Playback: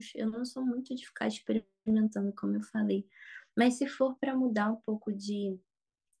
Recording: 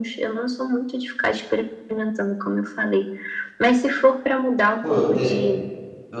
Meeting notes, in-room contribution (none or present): present